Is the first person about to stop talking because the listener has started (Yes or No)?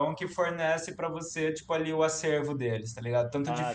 No